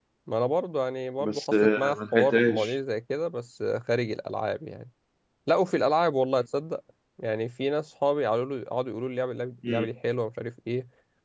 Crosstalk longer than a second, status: present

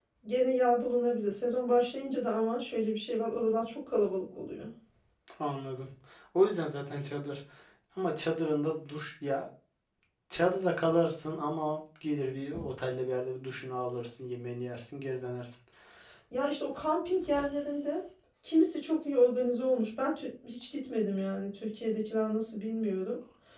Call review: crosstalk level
none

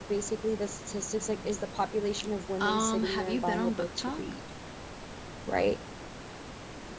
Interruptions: present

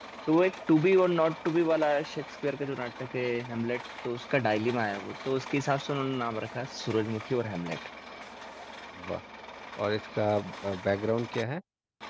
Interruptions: none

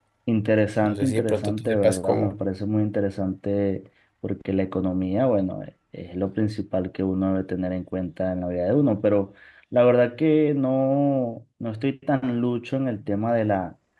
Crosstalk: present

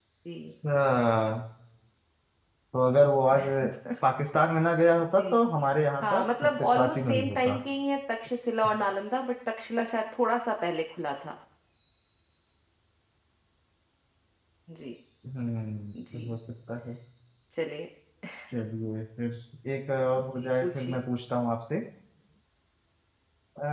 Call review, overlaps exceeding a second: present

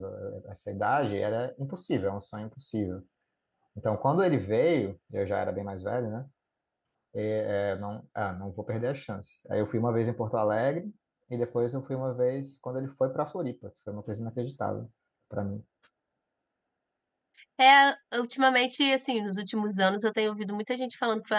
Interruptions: none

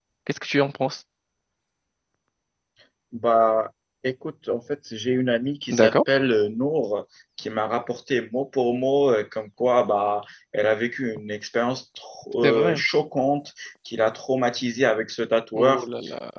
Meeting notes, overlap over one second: none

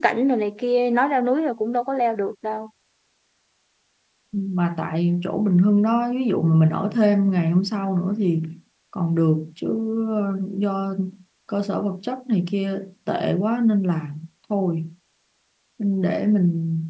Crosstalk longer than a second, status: none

